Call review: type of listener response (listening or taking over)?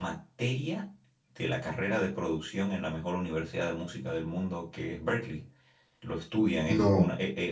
listening